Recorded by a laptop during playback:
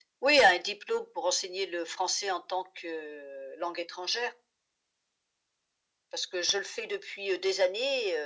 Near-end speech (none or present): none